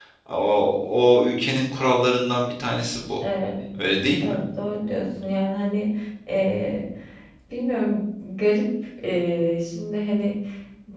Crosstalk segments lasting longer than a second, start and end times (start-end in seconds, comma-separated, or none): none